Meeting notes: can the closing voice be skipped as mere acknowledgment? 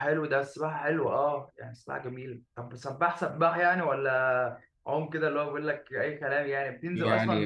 No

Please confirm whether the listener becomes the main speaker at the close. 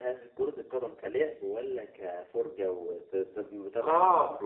Yes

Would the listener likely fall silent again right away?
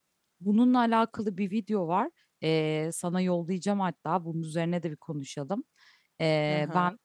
Yes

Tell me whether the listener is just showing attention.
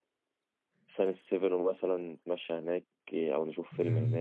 No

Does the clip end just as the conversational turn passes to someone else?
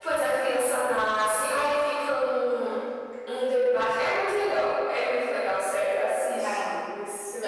Yes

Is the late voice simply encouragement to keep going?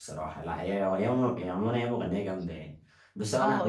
No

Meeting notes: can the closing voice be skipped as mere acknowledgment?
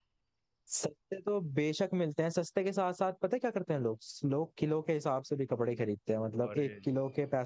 Yes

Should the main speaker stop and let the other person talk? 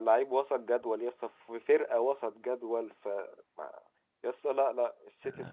No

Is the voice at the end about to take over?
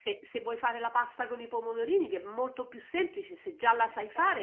Yes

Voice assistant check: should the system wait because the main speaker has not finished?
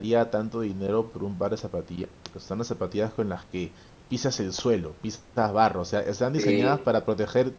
Yes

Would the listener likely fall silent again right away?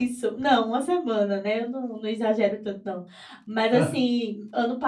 Yes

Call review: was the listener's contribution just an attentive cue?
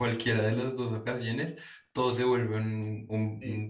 No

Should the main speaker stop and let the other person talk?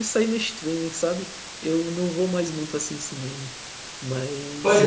Yes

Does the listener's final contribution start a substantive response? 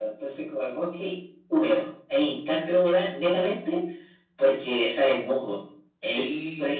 No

